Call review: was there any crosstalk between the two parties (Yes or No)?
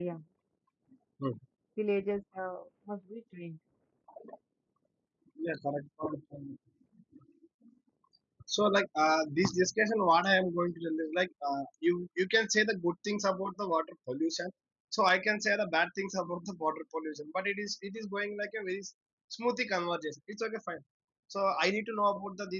No